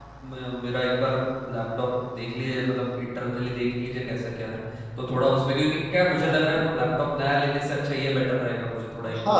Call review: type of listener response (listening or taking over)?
taking over